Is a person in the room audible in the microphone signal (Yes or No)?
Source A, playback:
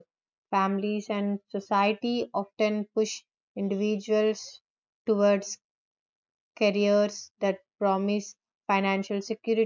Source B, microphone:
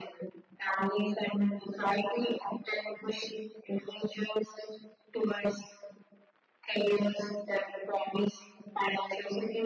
No